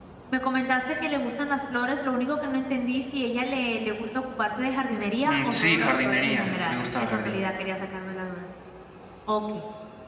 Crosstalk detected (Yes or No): Yes